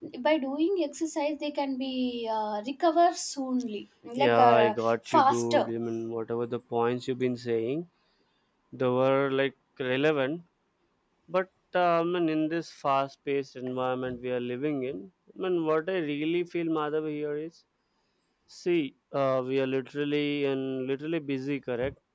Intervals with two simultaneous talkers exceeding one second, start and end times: 4.2-5.6

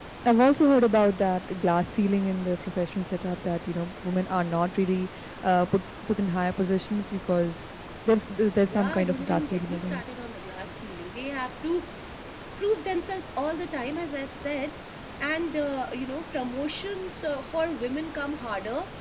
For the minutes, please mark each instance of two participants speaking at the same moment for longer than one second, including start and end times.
8.7-10.0

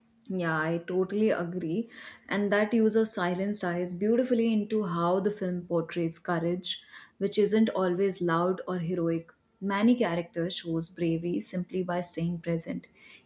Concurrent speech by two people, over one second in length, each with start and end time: none

